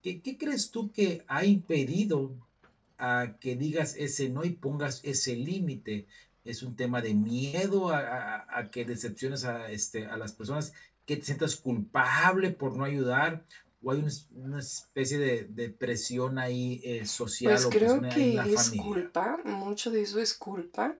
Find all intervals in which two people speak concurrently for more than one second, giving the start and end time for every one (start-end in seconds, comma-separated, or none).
17.4-19.0